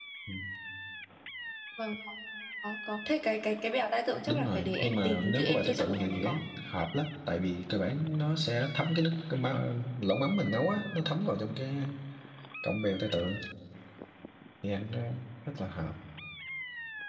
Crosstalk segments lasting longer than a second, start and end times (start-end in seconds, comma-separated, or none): 4.3-6.4